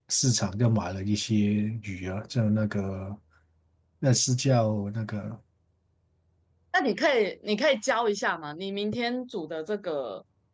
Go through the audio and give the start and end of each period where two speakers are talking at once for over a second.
none

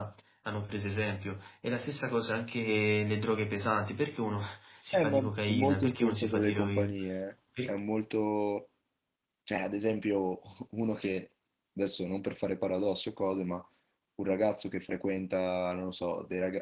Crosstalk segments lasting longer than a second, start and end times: 4.9-6.9

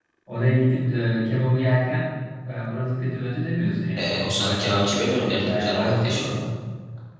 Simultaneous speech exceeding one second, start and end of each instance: 4.0-6.2

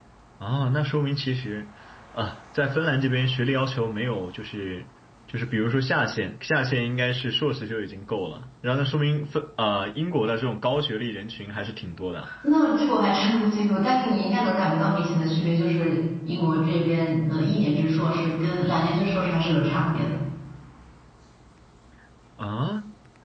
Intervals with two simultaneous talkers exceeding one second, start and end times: none

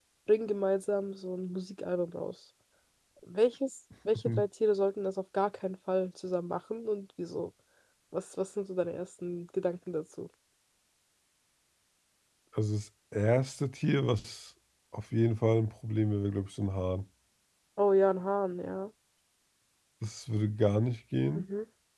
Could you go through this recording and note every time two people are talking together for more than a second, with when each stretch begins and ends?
none

